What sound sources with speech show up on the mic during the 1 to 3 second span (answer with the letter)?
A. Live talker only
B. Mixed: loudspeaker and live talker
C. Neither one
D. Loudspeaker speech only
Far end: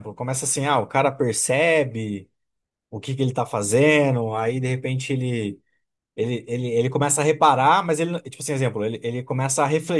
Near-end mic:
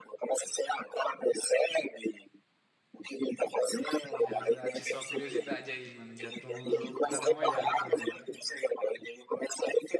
D